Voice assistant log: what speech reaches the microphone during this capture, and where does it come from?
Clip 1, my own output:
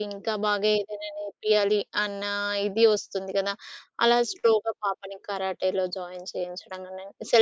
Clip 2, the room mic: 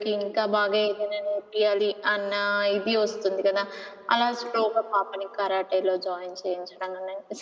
echo only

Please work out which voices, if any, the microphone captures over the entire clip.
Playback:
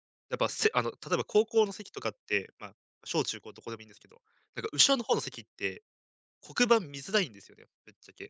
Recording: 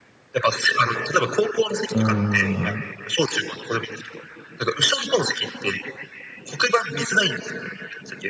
both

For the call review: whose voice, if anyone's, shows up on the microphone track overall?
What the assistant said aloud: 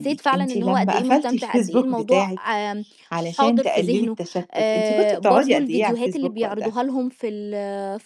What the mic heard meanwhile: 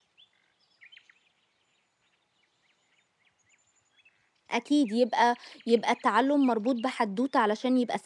user only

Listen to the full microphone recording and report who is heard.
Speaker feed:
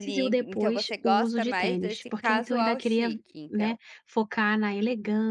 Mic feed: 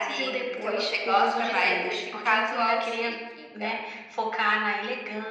echo only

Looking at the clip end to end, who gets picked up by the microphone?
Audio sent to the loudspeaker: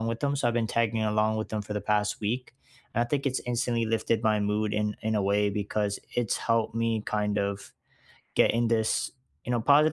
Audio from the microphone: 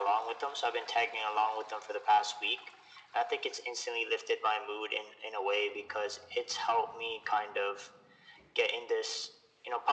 echo only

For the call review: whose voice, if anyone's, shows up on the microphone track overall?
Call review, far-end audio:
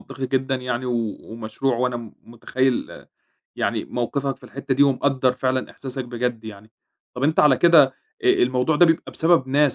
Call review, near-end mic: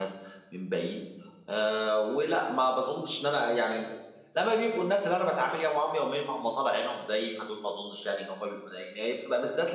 user only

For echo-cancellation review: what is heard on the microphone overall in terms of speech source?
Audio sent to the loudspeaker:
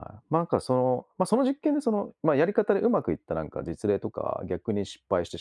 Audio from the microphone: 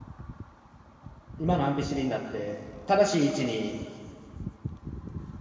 user only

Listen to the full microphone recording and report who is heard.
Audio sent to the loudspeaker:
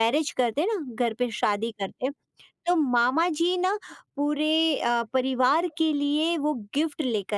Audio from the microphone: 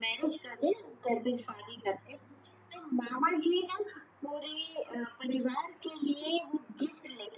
echo only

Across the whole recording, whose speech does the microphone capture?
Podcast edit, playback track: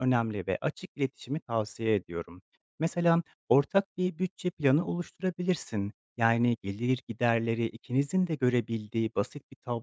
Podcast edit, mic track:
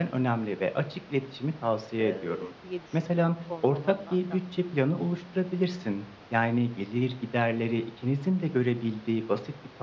both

